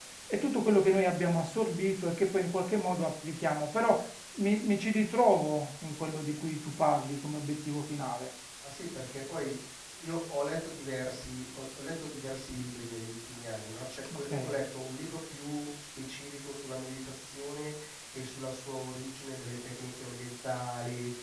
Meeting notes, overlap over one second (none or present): none